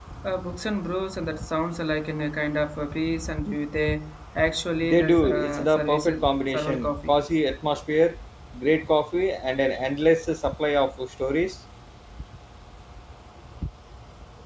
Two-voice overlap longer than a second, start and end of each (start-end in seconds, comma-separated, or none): 4.8-7.1